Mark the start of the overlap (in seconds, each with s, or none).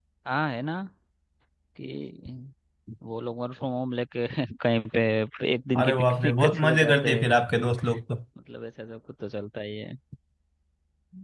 5.8 s